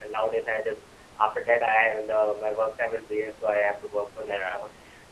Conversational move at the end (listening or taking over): taking over